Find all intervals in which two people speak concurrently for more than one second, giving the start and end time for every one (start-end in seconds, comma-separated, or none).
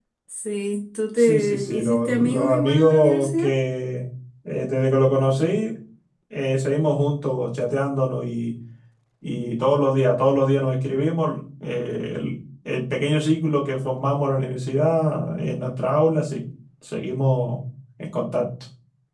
1.2-3.5